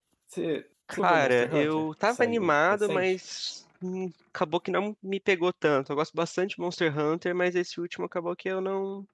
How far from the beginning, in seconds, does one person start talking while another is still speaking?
0.9 s

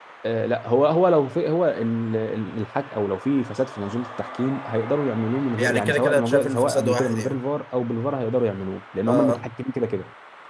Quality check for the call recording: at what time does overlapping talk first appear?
5.6 s

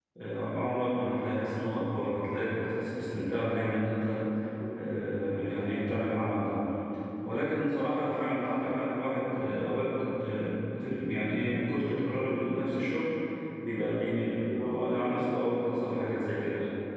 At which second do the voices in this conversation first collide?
14.3 s

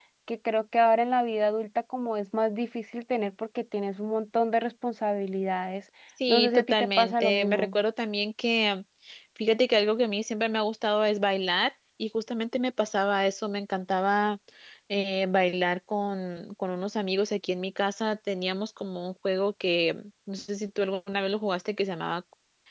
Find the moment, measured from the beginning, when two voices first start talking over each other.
6.3 s

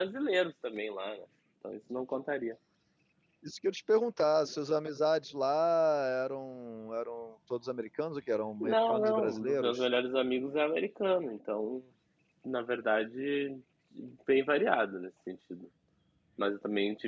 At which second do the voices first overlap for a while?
8.6 s

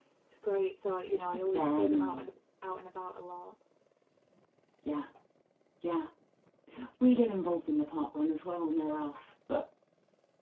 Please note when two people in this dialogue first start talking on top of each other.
1.1 s

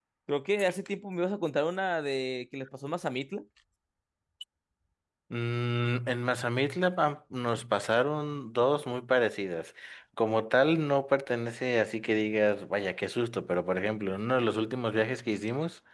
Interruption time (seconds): none

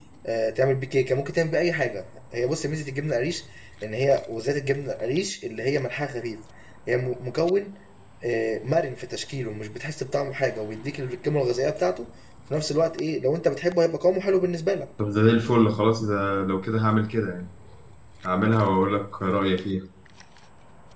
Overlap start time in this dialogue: none

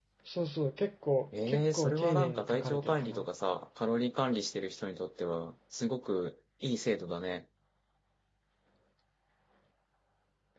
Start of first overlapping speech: 1.3 s

